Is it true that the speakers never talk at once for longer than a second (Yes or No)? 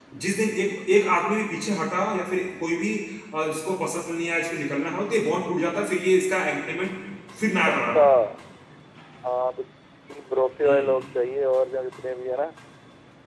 Yes